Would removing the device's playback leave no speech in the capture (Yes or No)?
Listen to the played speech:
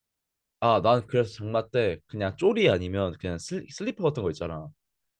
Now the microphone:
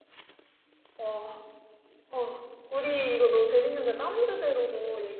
No